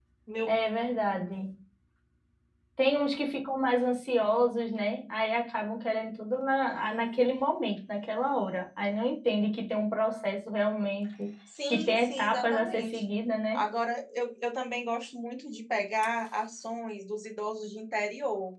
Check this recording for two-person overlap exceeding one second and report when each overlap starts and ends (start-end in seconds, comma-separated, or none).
11.7-13.1